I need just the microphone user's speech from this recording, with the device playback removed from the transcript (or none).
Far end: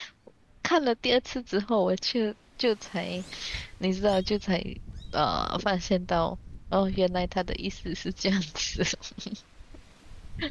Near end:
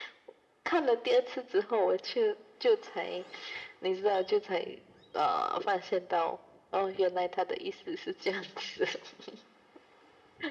none